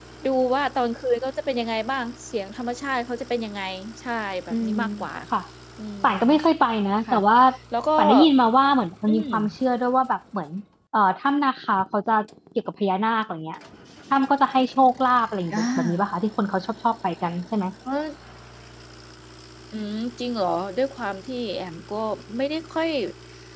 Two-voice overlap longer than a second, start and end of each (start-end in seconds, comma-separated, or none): none